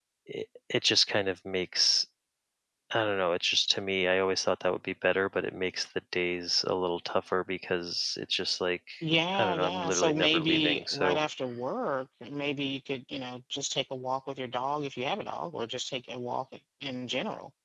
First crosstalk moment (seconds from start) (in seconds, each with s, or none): 9.4 s